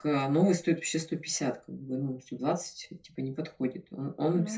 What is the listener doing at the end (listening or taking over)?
listening